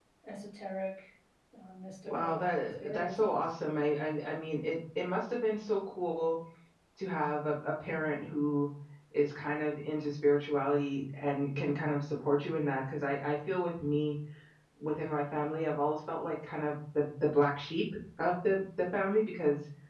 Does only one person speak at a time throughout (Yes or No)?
No